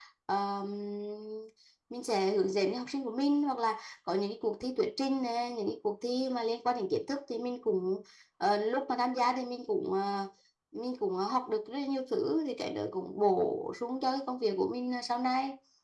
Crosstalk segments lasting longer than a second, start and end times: none

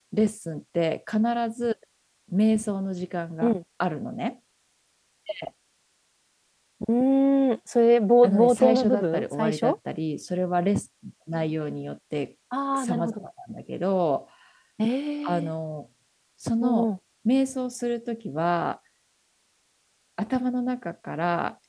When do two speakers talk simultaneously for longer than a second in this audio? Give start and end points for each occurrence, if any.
8.2-9.8

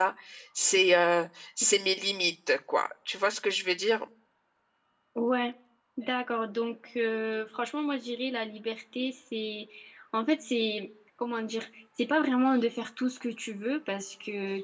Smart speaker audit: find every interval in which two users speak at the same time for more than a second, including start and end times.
none

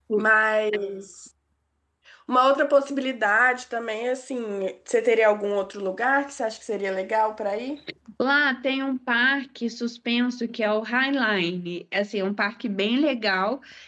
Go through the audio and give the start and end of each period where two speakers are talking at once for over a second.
none

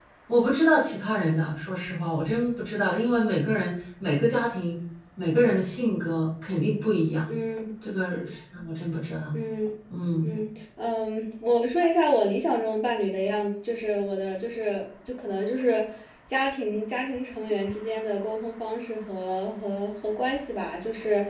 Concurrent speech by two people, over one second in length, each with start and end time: none

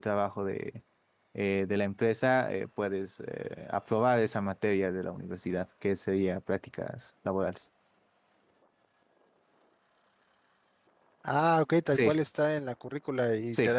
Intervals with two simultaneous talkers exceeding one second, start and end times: none

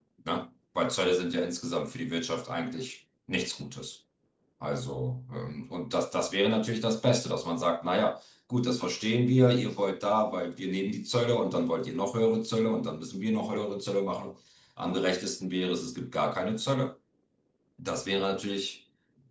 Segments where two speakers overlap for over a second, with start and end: none

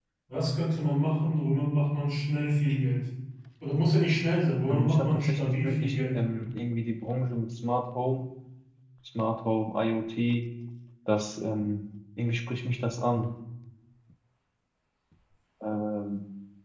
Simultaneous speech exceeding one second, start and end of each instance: 4.7-6.2

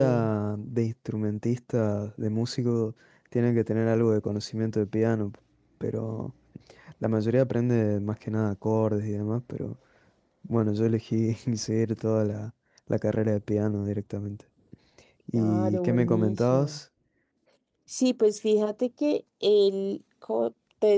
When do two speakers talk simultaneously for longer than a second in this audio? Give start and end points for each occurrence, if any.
15.3-16.8

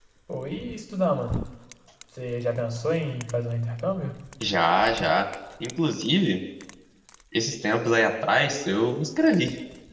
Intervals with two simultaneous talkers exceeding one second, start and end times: none

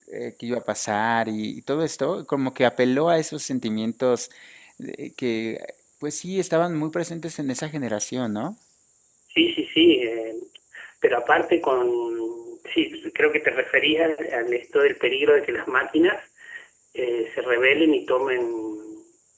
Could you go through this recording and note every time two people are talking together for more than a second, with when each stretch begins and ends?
none

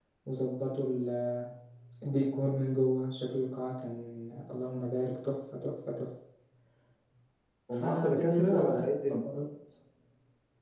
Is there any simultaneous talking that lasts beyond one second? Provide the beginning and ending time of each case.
7.7-9.2

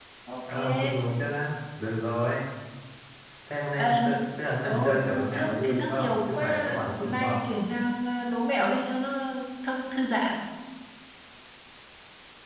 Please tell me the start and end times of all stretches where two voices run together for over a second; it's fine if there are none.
4.6-7.5

